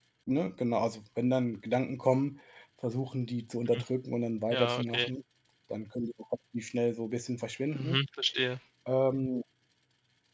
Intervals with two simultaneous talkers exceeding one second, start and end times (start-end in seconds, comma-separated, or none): none